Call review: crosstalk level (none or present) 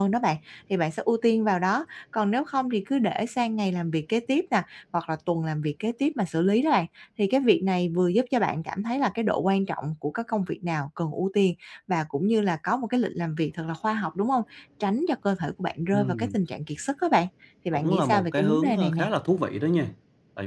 present